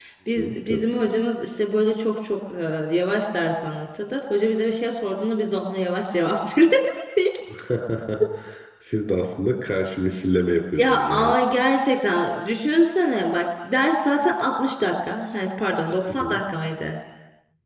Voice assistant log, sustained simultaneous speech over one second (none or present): none